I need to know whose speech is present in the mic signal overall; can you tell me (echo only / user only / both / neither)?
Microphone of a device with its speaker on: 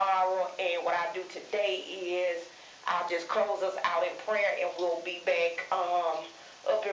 echo only